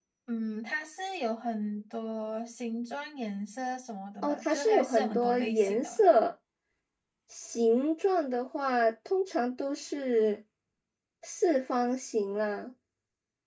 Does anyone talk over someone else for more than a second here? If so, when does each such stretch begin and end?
4.2-6.0

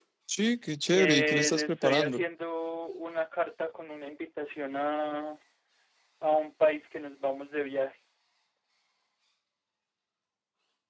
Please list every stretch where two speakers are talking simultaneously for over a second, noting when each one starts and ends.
0.9-2.2

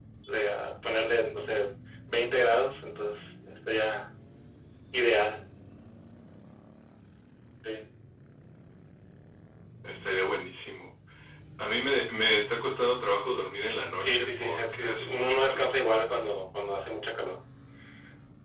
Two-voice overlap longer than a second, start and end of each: 14.0-15.7

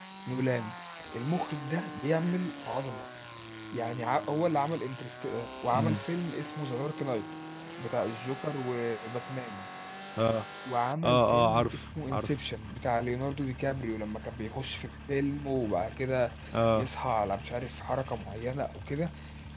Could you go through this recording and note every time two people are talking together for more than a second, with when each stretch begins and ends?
11.0-12.3

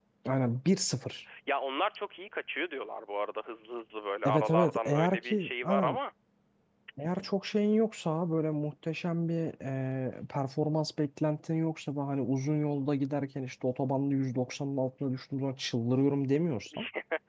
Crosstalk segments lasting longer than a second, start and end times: 4.2-6.0

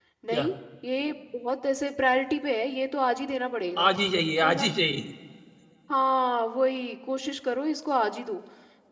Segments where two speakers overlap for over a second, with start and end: none

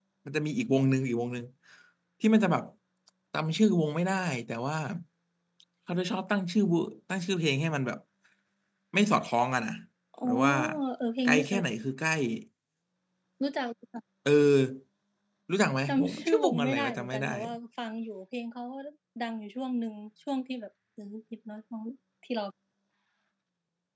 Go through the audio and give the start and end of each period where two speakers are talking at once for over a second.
15.9-17.3

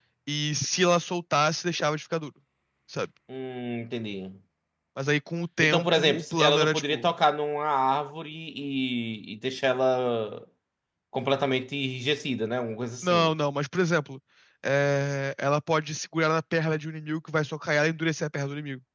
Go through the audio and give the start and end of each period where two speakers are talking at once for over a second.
5.6-7.1

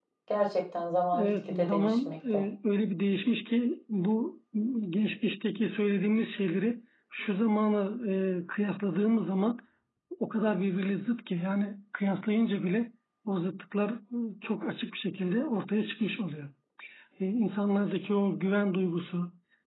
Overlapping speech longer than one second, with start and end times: 1.2-2.4

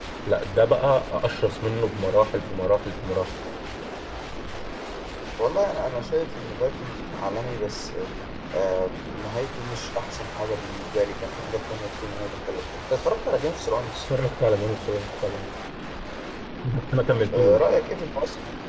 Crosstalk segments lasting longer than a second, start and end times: none

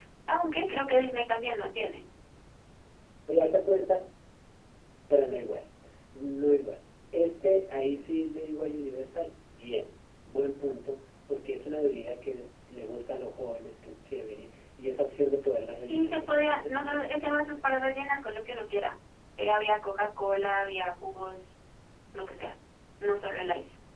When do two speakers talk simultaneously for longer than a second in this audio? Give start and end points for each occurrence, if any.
15.9-17.9

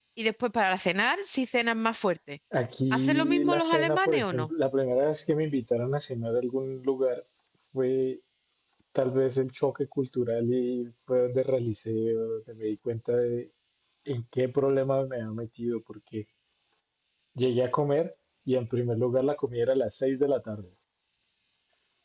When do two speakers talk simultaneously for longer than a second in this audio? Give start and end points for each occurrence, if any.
2.9-4.5

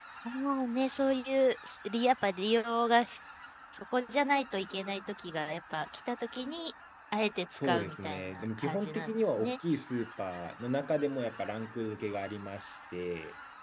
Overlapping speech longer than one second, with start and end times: 7.5-9.5

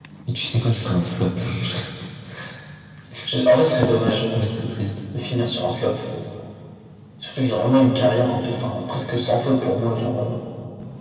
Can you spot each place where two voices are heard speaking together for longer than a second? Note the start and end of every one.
none

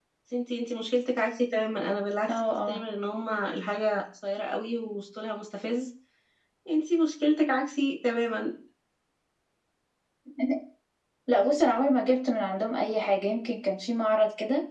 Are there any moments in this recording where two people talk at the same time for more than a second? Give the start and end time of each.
none

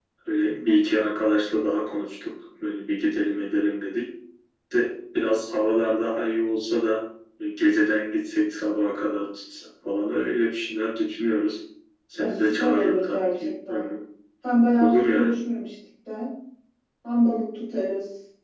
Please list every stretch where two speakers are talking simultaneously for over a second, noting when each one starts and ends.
12.2-13.9

